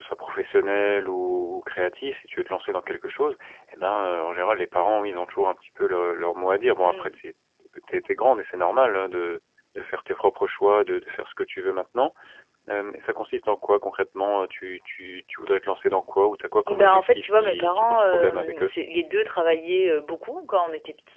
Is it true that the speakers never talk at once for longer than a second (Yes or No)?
No